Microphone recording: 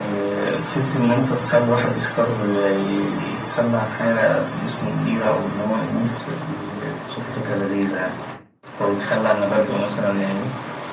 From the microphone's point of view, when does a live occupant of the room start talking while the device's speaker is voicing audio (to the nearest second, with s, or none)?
none